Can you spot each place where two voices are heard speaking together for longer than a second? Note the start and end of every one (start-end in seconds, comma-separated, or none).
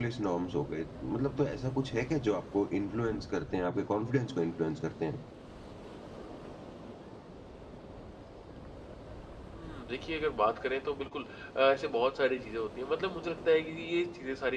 none